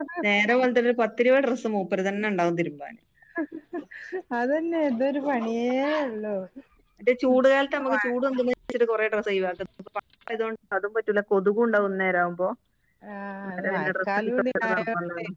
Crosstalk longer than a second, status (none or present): present